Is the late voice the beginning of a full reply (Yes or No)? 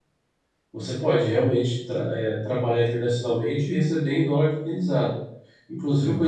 No